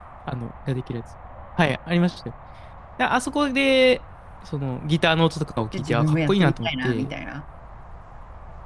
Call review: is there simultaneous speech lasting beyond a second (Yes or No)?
Yes